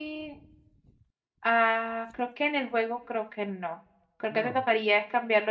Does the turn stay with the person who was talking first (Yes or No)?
Yes